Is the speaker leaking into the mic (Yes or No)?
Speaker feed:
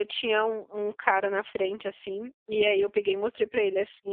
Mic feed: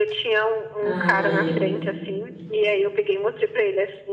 Yes